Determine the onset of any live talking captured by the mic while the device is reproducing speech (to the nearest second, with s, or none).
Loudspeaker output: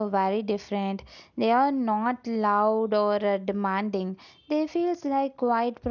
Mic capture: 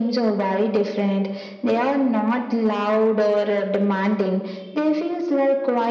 none